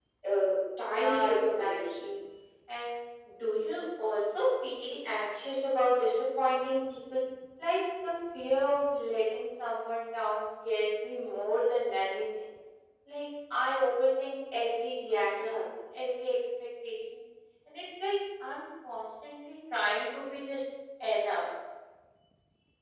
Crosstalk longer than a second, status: present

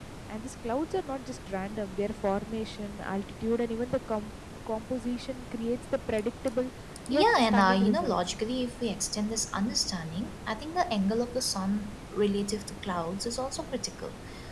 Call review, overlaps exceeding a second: present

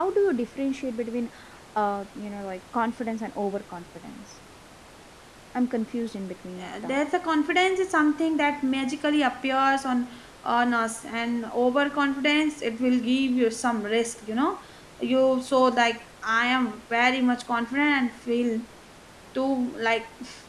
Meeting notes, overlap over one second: none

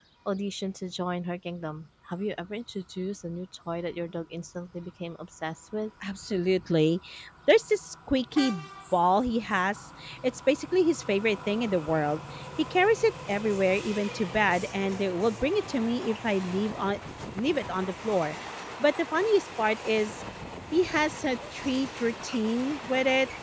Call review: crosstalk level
none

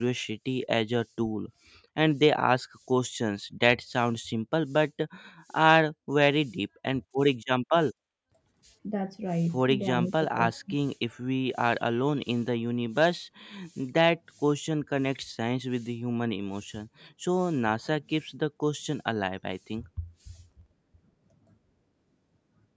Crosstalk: present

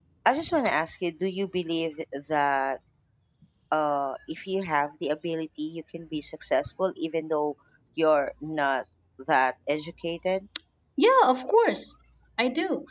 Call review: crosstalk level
none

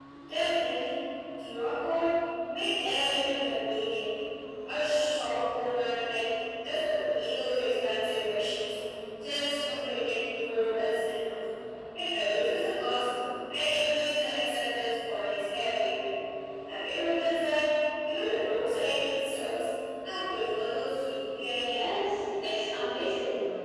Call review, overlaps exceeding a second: none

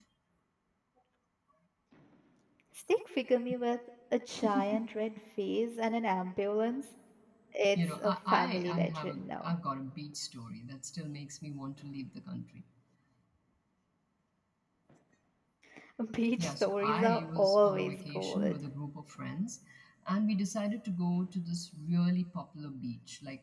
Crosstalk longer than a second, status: present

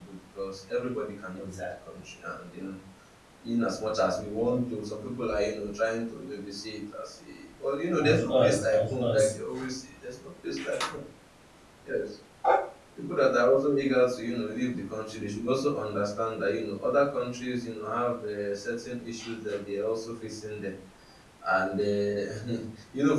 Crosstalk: present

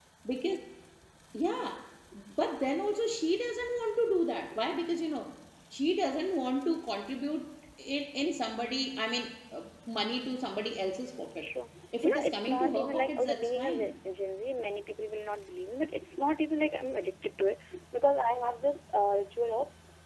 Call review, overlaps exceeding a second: present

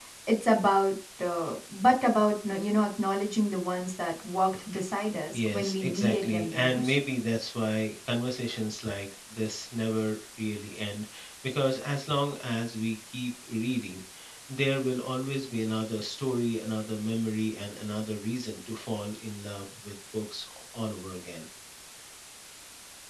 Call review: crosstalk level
present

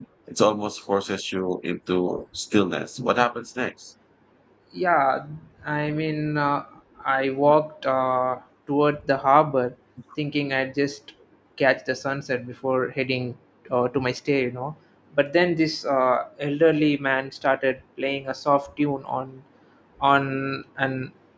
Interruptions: none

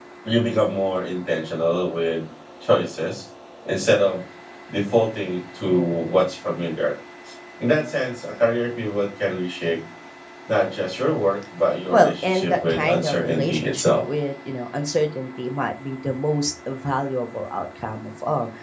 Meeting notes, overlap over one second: present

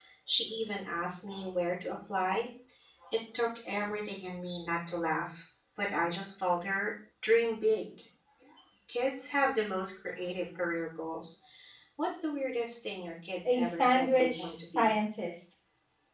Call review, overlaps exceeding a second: present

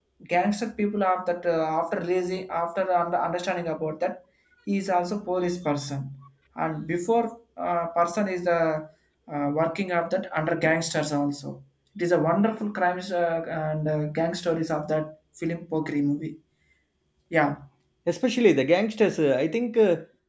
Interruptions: none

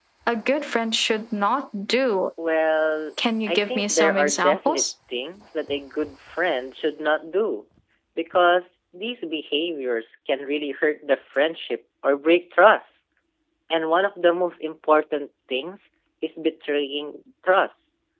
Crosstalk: present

